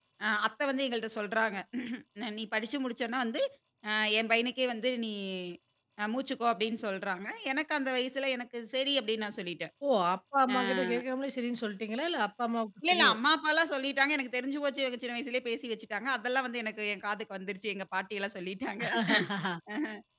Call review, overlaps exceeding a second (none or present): none